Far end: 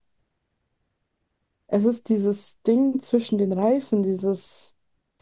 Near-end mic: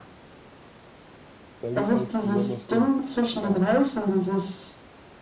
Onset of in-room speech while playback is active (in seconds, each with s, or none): 1.6 s